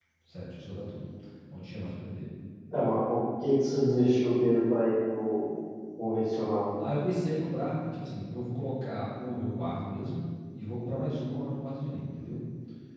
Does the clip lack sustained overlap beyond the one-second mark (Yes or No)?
Yes